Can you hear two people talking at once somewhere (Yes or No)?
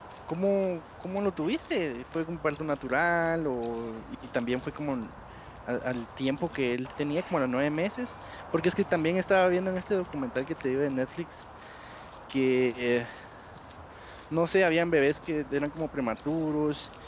No